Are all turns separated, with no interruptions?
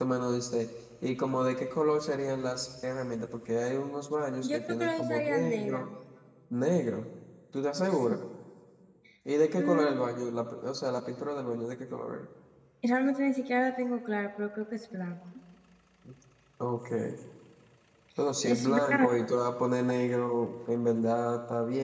No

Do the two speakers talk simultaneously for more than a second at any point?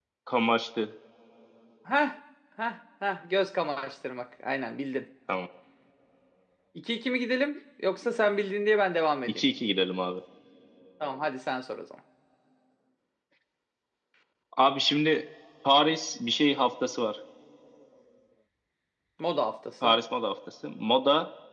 No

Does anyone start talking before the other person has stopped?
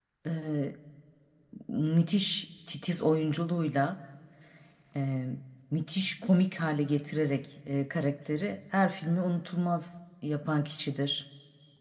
No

